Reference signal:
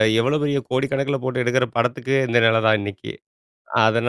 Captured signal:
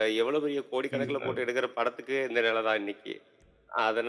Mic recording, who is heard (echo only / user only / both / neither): both